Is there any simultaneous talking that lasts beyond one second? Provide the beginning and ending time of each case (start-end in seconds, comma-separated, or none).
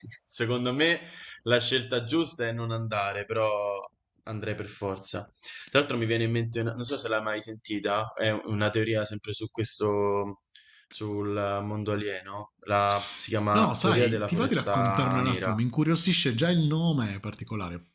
13.5-15.5